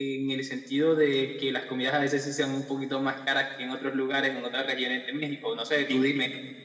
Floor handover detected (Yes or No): Yes